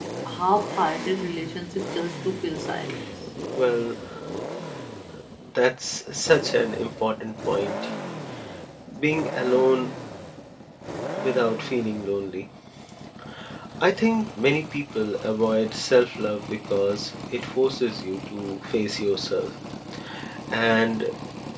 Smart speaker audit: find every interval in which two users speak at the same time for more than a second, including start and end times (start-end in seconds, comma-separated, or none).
none